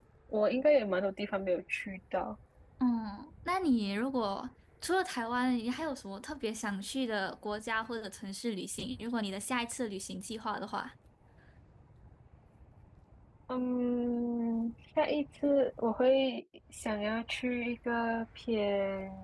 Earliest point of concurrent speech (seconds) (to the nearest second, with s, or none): none